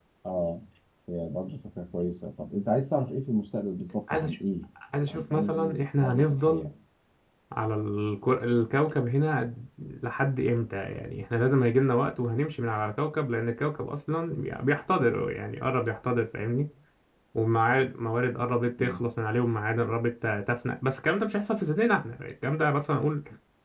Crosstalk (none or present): present